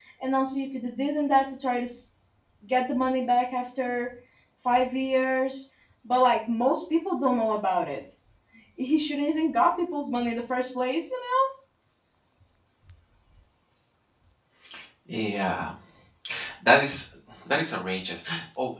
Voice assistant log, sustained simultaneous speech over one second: none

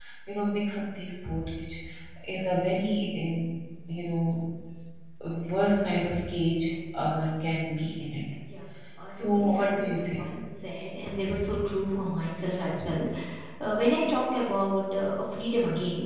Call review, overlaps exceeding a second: present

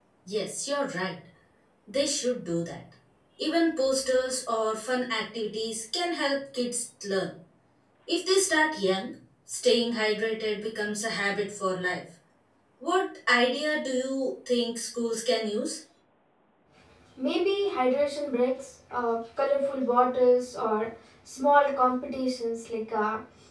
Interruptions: none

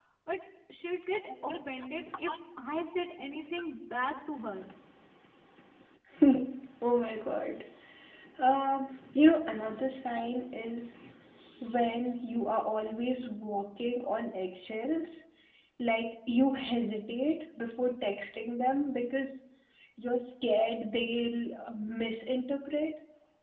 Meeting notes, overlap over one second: none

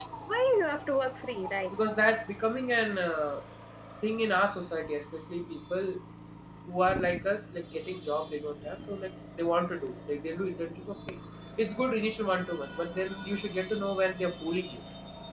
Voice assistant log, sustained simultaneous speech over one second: none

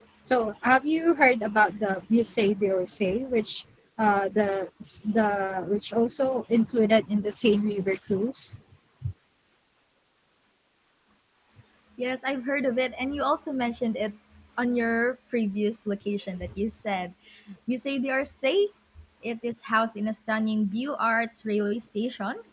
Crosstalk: none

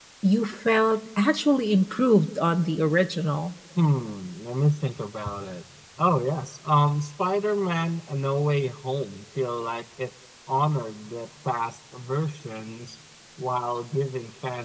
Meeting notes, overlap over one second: none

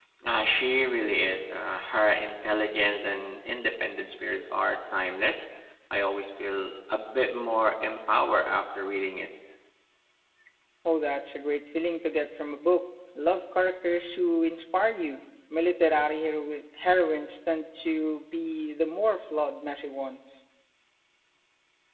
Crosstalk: none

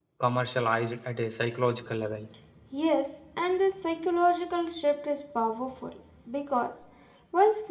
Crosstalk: none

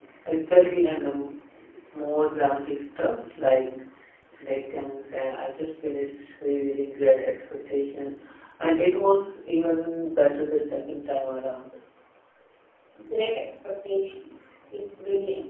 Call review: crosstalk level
none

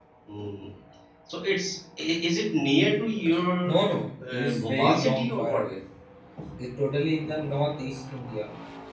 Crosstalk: present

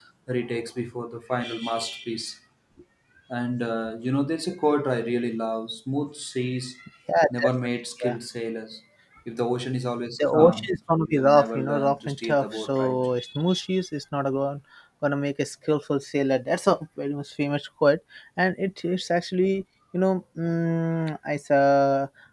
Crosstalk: present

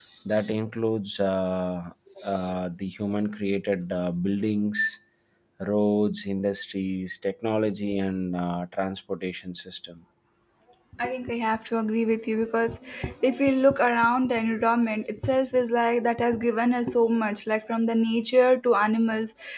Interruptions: none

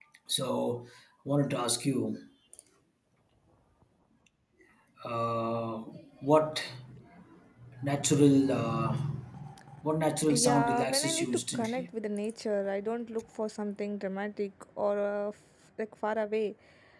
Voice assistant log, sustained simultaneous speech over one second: present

